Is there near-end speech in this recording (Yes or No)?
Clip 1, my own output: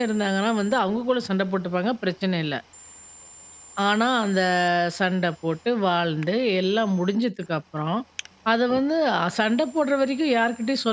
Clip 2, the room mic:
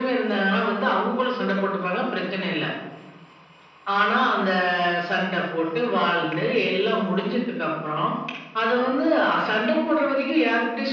No